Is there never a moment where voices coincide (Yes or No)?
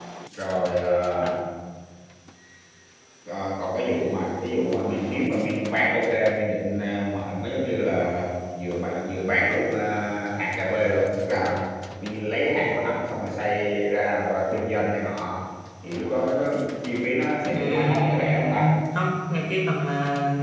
No